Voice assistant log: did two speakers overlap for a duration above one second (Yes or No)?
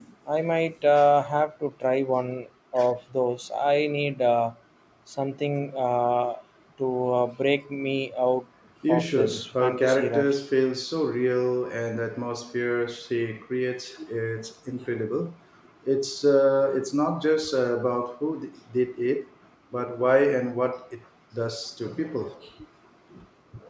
Yes